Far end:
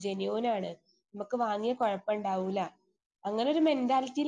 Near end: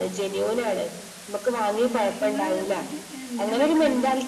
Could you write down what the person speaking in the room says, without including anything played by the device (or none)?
പിന്നെ ഇങ്ങള് ഇത് എന്തിനാ പഠിക്കണത്?